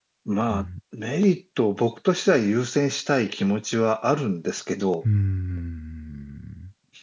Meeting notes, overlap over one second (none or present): none